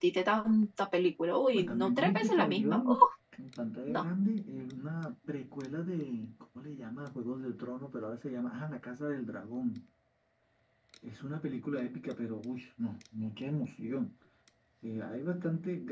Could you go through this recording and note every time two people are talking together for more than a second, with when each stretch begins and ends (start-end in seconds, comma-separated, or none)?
1.5-3.0